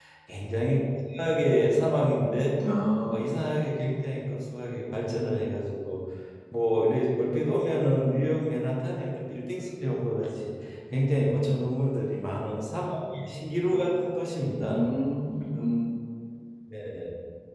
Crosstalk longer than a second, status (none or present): none